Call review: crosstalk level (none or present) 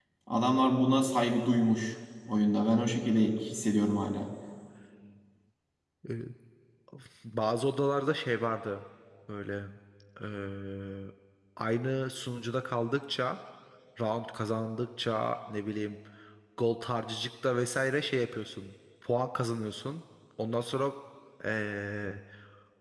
none